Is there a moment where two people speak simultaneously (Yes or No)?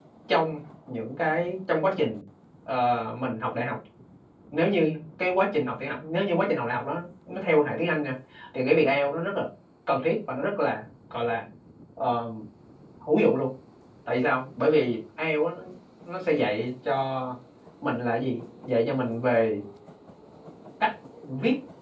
No